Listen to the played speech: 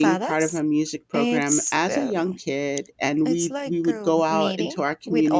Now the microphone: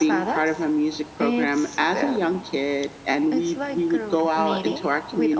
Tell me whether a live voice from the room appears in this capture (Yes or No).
No